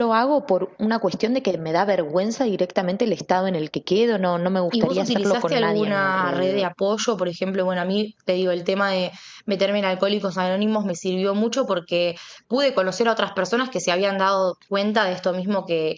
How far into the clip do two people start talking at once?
4.7 s

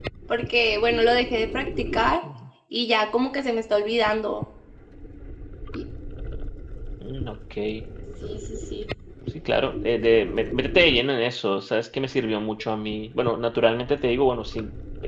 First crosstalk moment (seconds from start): none

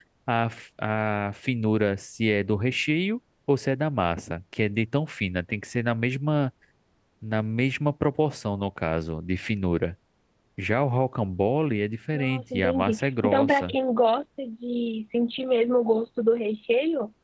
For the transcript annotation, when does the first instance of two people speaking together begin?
12.1 s

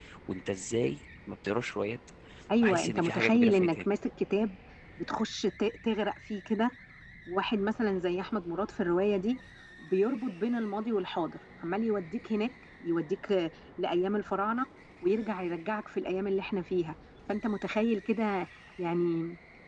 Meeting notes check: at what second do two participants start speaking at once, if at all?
2.6 s

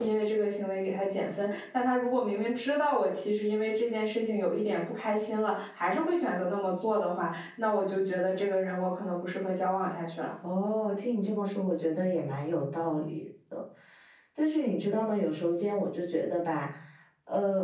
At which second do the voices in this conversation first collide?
none

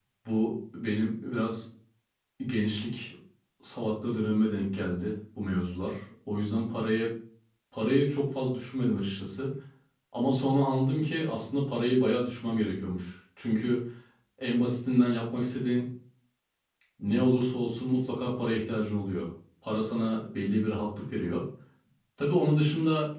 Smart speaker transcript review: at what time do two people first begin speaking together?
none

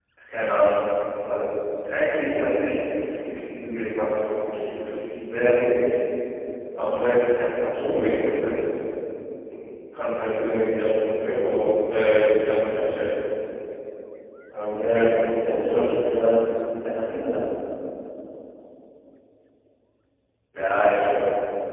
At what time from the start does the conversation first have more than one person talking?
14.7 s

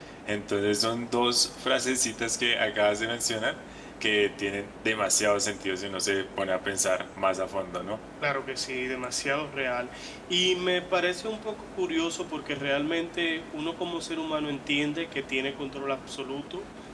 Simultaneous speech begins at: none

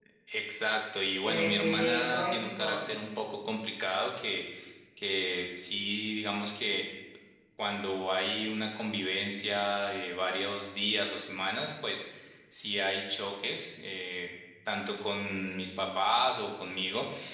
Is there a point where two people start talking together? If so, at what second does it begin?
1.2 s

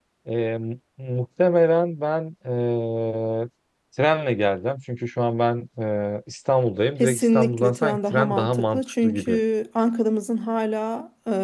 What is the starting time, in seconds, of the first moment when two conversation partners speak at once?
7.0 s

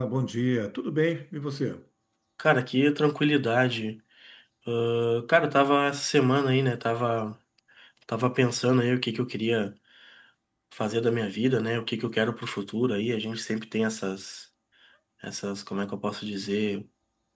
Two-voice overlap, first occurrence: none

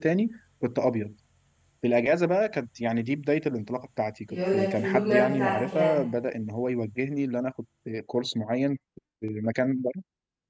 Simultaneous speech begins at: 4.3 s

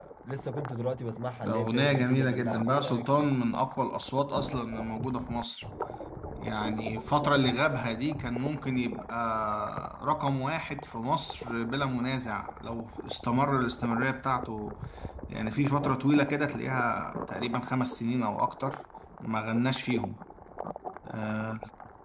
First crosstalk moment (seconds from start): 1.4 s

